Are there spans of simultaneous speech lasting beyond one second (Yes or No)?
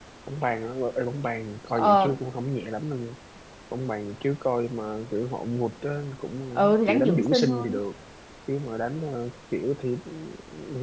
Yes